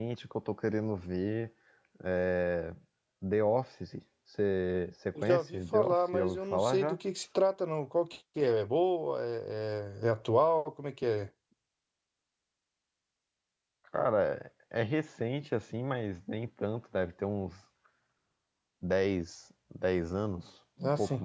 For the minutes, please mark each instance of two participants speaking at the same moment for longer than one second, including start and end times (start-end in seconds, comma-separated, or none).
5.2-7.0